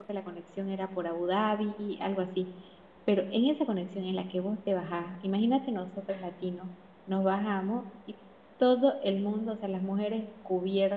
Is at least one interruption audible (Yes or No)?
No